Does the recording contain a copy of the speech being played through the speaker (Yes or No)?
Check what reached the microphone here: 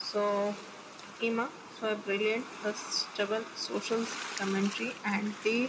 Yes